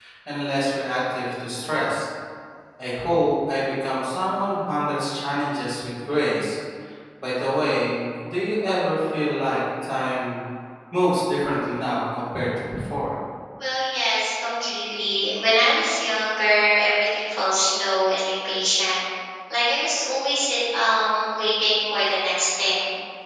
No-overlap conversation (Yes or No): Yes